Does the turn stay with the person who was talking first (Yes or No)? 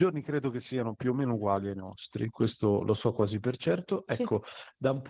Yes